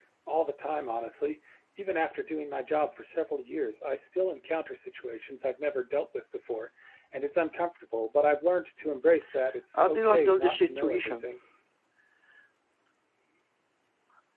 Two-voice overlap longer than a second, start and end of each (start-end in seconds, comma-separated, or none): 9.8-11.3